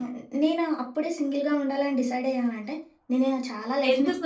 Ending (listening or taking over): taking over